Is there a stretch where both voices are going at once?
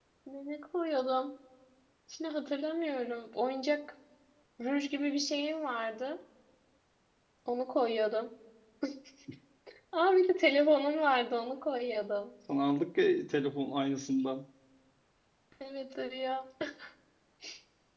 No

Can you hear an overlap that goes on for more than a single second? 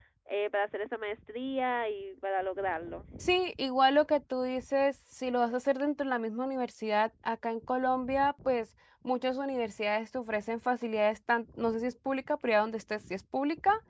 No

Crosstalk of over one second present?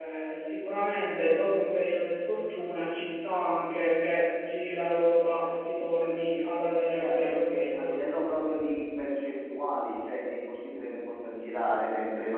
Yes, from 7.0 s

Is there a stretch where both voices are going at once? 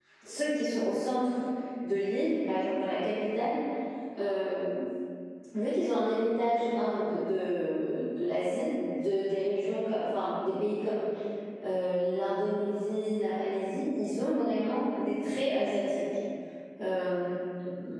No

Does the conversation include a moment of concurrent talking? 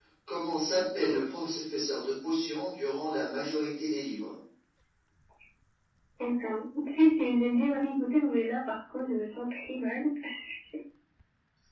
No

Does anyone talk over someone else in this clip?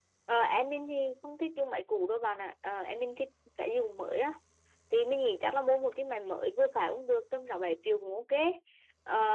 No

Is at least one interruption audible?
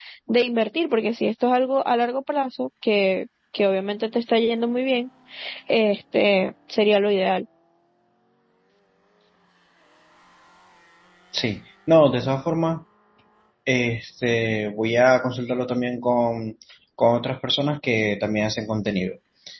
No

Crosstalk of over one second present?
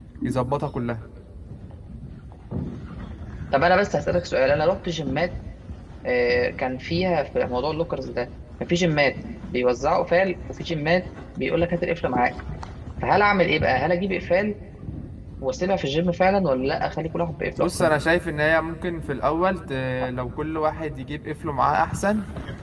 No

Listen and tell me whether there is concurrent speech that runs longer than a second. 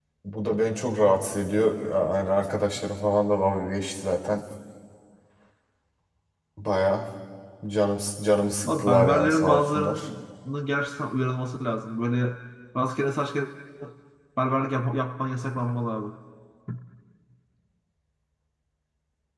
Yes, from 8.6 s

